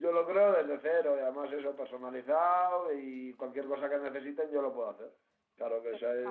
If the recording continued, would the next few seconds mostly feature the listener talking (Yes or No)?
No